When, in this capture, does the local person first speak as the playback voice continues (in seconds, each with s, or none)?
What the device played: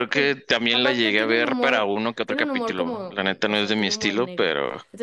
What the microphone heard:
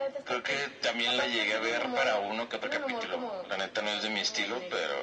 none